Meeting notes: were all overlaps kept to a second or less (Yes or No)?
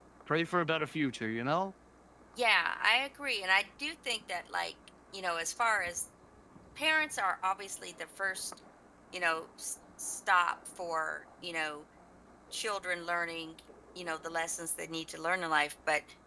Yes